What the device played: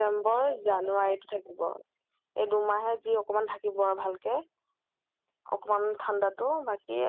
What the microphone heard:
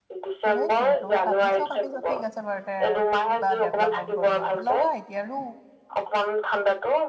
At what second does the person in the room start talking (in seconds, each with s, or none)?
0.5 s